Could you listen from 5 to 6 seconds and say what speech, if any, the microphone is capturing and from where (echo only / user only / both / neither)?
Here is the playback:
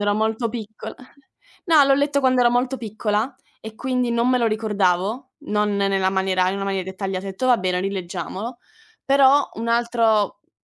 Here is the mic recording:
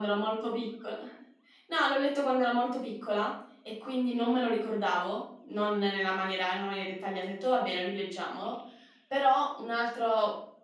echo only